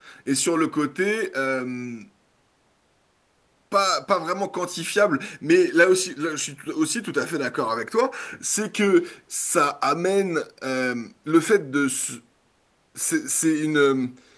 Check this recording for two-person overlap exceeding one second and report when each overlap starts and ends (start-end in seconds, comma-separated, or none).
none